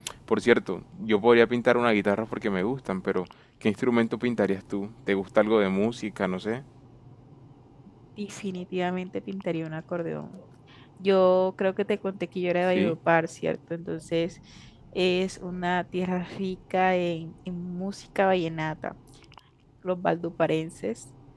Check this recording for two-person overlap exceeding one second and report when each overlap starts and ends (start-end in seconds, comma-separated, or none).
none